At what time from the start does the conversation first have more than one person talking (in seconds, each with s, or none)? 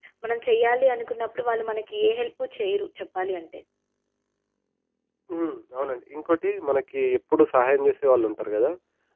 none